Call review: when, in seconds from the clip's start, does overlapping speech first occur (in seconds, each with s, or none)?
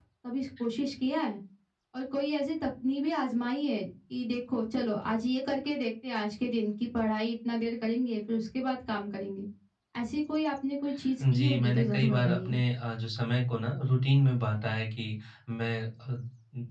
11.2 s